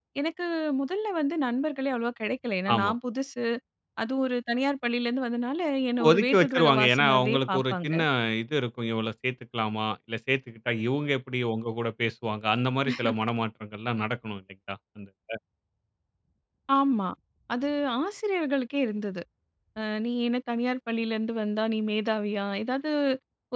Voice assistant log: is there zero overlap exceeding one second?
No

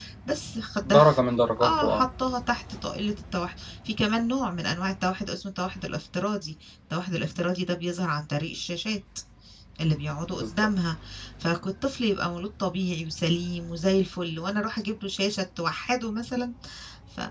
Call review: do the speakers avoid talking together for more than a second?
Yes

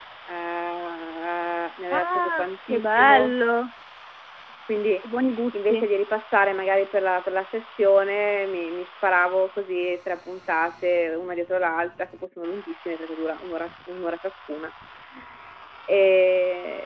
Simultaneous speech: Yes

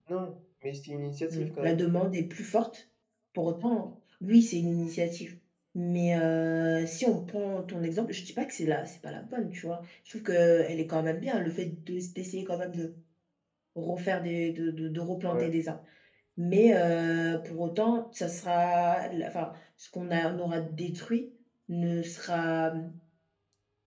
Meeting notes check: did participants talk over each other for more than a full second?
No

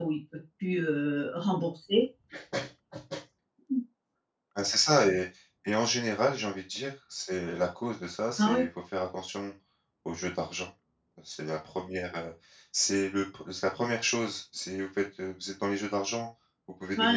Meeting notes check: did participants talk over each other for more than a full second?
No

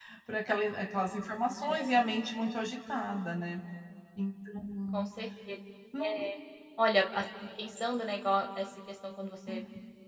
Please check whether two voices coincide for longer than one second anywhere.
No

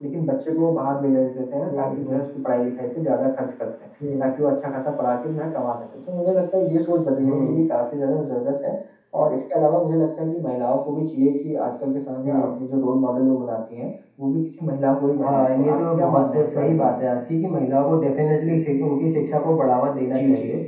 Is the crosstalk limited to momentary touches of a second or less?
No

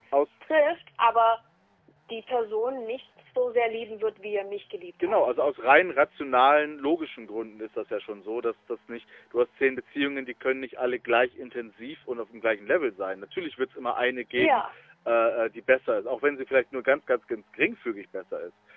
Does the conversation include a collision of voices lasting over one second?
No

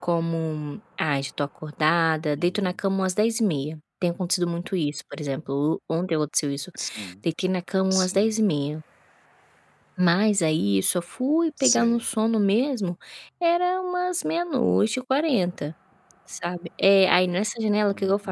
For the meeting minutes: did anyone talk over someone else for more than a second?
No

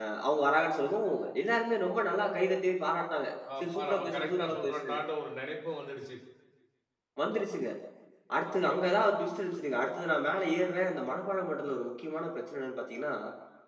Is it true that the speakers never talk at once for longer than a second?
No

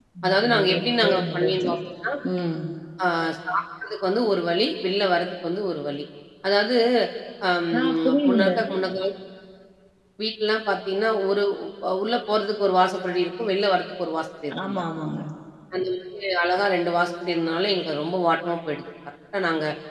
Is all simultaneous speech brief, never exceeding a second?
No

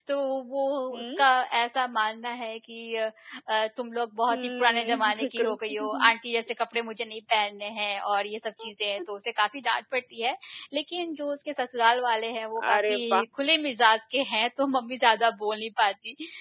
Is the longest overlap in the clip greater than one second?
Yes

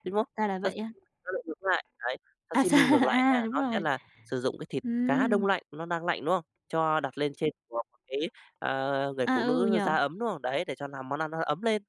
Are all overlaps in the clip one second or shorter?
No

